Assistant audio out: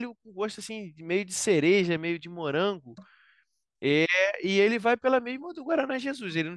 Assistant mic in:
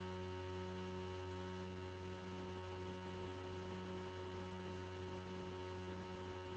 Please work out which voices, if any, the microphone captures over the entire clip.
neither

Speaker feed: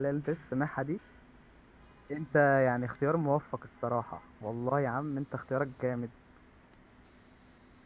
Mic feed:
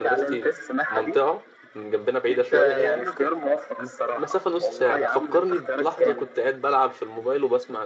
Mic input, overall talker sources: both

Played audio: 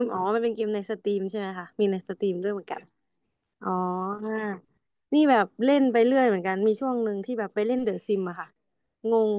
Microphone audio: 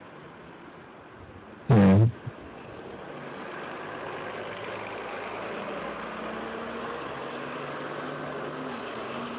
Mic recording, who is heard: user only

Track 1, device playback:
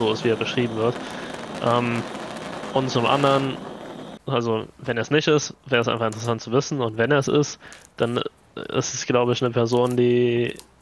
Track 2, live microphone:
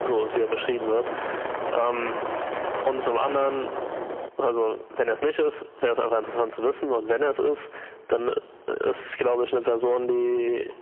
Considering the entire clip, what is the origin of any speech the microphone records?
echo only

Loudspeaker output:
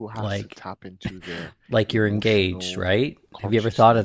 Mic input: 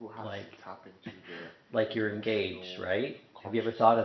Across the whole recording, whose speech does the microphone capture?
echo only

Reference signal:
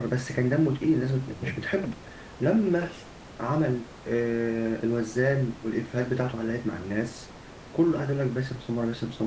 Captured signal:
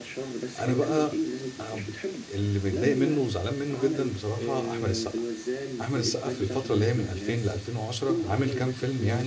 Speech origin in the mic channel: both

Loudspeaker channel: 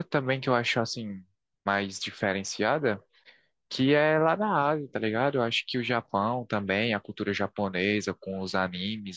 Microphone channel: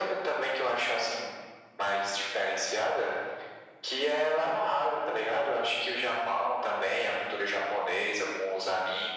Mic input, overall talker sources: echo only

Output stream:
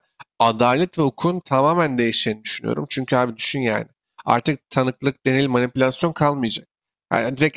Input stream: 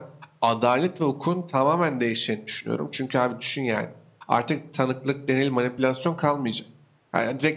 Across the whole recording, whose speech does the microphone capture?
echo only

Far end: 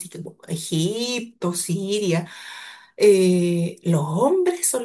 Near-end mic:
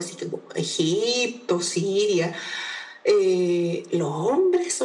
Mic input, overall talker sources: echo only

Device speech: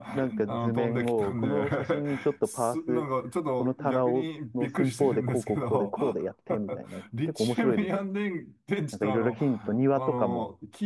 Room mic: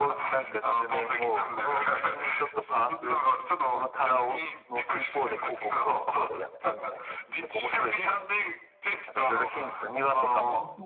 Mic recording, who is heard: both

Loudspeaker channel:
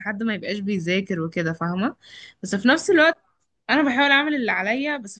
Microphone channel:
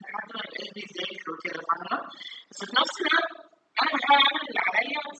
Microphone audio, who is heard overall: echo only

